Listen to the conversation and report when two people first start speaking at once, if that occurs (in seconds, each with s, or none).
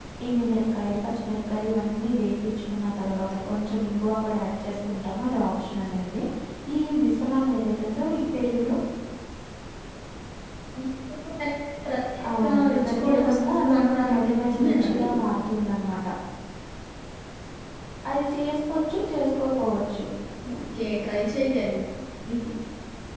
12.2 s